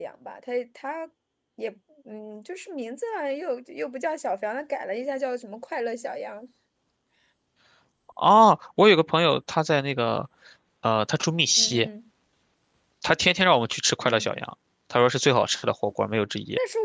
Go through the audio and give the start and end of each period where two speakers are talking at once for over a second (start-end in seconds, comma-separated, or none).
none